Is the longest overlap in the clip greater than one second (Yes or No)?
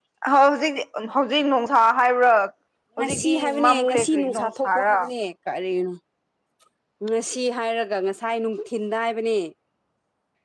Yes